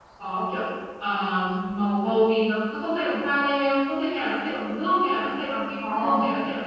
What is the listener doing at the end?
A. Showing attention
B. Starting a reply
B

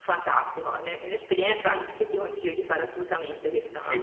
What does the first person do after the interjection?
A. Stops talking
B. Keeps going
A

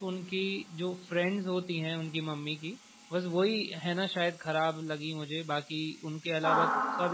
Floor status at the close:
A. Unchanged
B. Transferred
A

